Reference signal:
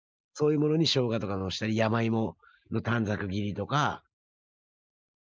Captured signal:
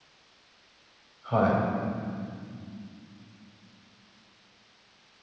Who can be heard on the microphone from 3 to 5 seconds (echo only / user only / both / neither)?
neither